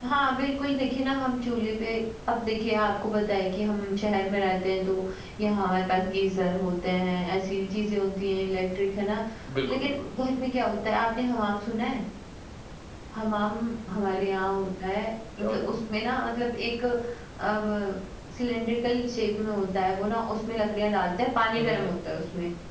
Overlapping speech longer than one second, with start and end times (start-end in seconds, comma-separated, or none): none